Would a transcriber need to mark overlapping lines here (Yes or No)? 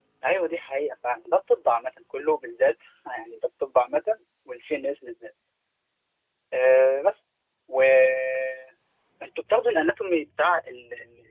No